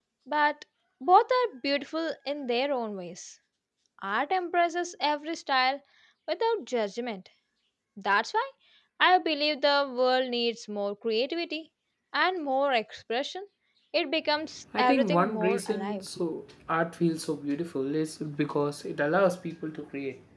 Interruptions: present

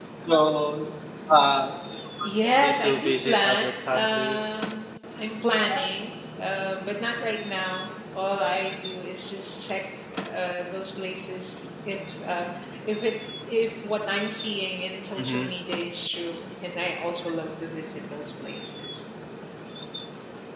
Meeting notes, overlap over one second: present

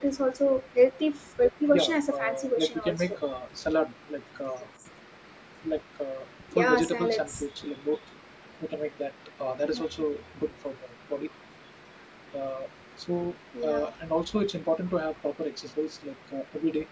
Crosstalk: present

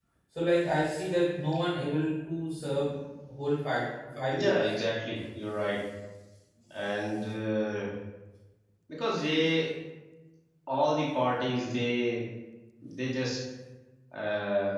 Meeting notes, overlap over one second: none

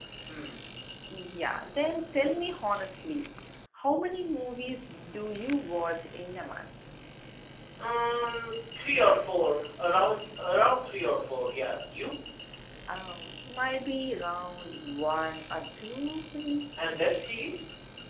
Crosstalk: none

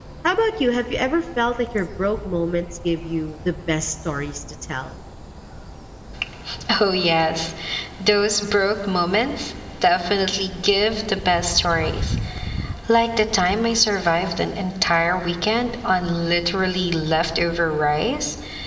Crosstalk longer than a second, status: none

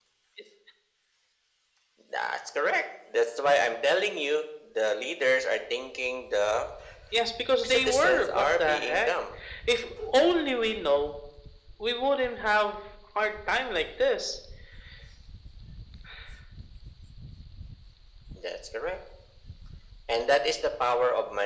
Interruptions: present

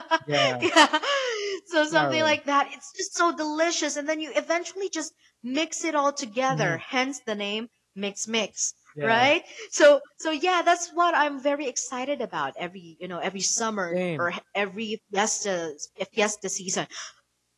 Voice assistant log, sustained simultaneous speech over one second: none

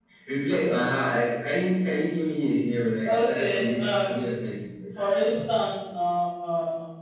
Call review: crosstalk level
present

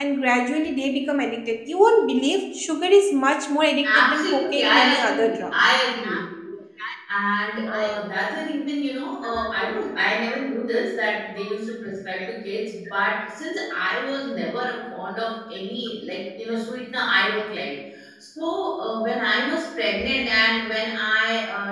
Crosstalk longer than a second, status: present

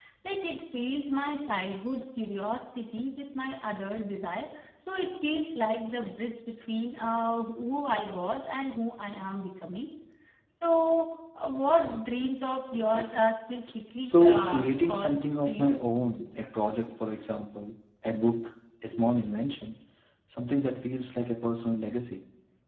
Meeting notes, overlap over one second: present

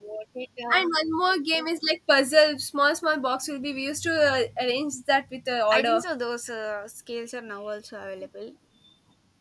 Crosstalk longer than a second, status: none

